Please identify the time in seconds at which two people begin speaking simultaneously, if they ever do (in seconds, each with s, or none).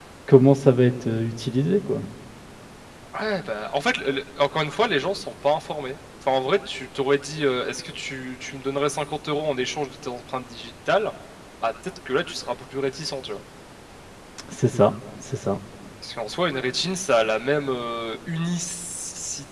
none